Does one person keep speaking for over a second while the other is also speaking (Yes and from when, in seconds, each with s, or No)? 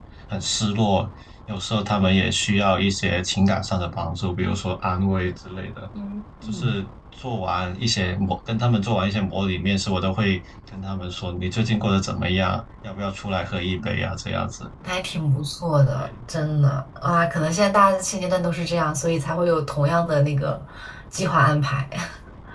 No